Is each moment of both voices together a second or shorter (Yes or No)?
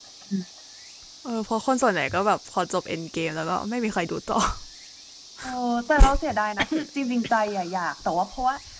Yes